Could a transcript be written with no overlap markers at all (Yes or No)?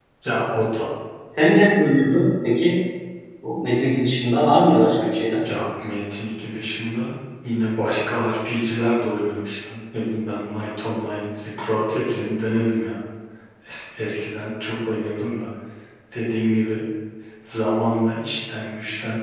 Yes